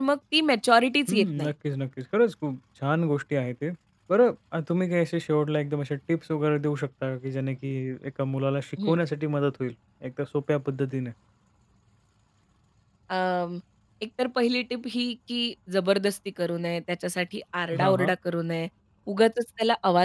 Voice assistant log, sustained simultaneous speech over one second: none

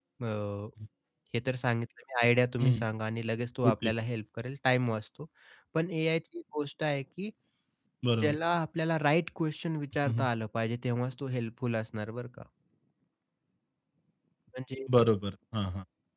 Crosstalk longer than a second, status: none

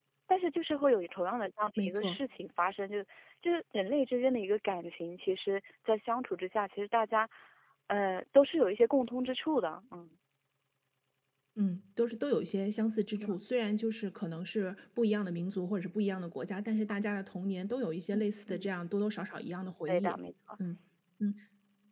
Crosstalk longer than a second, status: none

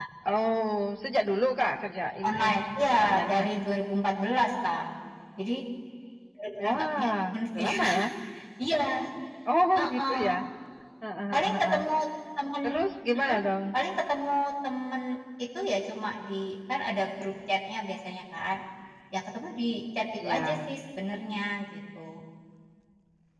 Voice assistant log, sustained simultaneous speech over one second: present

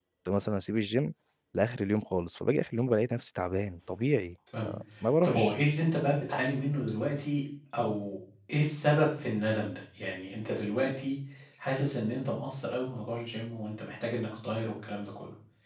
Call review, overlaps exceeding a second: none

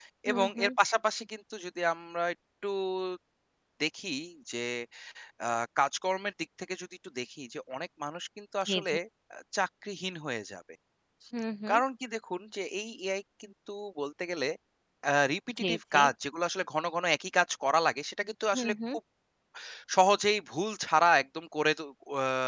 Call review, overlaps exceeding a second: none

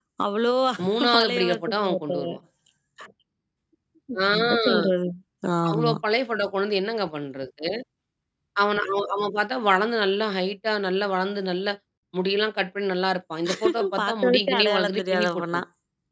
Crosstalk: present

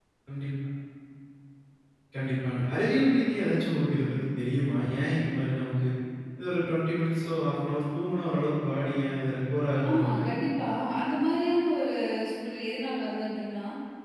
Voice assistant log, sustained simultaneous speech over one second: none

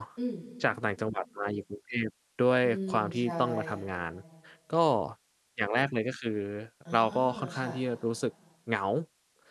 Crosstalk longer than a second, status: present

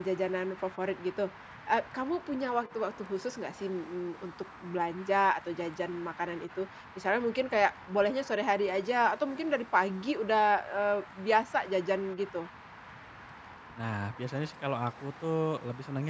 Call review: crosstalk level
none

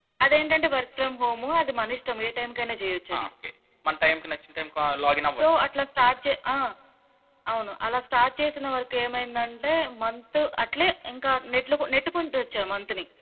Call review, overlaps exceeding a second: none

